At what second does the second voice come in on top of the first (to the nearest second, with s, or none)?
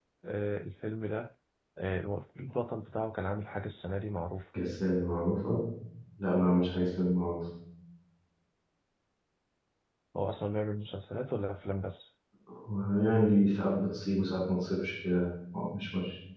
none